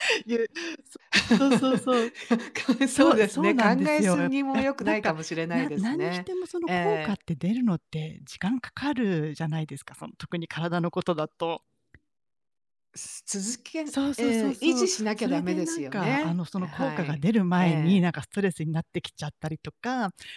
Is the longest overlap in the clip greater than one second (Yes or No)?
Yes